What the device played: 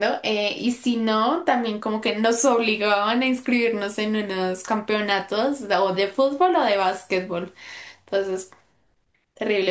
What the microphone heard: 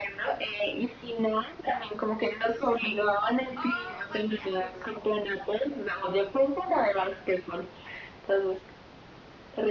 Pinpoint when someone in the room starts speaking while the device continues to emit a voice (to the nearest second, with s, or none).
4 s